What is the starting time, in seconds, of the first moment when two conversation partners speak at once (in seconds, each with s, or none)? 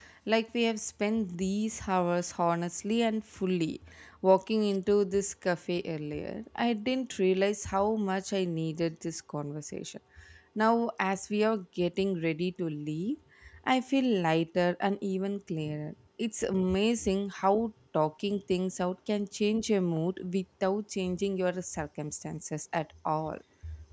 none